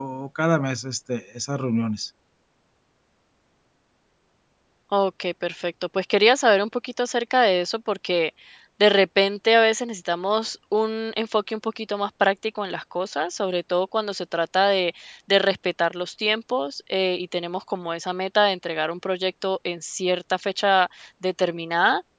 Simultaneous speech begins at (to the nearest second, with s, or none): none